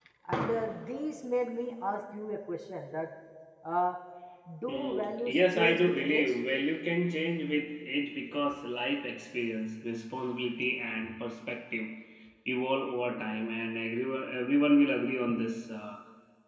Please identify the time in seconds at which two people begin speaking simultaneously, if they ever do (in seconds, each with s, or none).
4.7 s